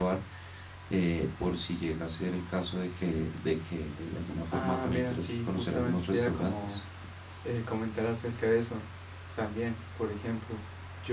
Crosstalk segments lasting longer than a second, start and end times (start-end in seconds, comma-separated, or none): 4.5-6.8